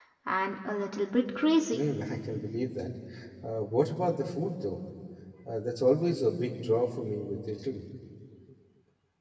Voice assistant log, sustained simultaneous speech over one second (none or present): none